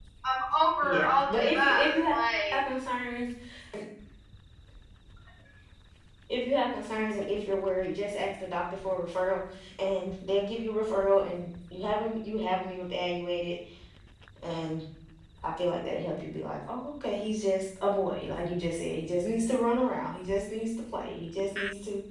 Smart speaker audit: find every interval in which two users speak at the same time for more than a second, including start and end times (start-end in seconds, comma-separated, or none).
0.8-2.1